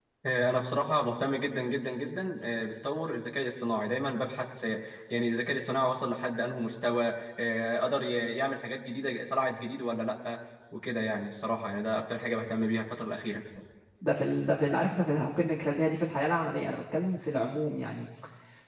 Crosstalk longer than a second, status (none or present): none